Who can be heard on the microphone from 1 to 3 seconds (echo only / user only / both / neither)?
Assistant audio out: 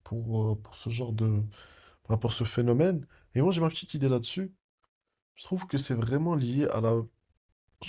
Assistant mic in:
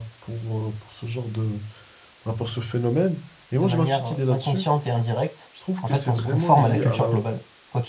echo only